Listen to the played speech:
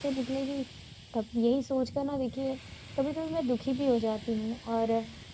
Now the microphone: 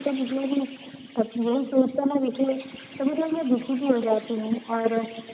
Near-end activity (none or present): none